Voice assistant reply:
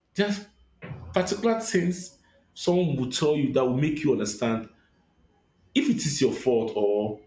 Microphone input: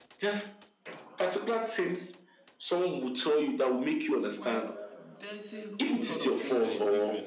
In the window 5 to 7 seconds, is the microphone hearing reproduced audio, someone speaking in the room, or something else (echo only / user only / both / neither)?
both